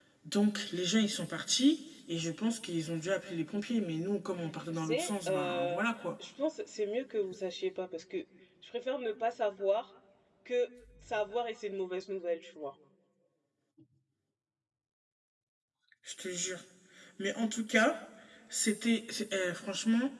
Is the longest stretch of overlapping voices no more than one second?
No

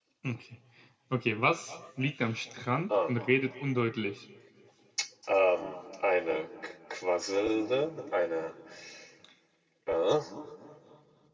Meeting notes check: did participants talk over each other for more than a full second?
No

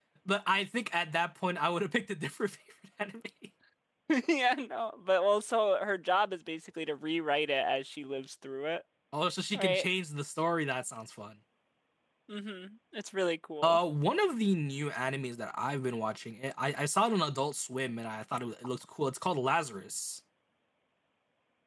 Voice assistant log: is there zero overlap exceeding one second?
Yes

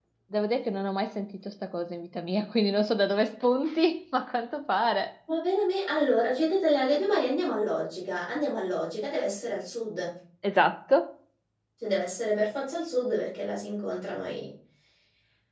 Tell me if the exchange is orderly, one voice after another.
Yes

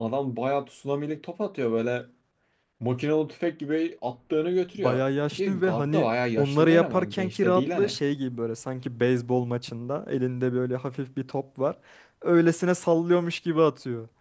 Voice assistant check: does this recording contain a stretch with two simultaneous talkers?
Yes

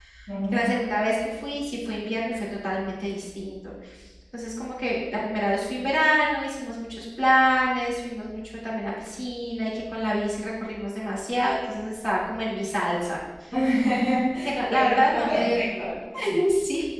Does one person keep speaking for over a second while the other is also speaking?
Yes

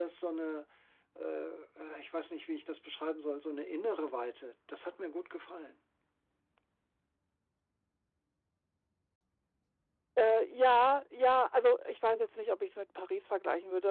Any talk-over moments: No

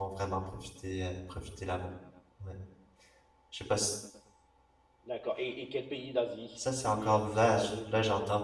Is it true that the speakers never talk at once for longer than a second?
No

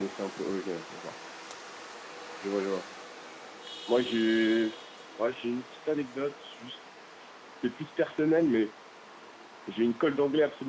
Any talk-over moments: No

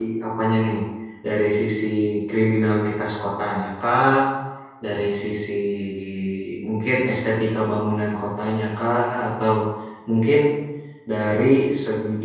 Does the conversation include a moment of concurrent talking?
No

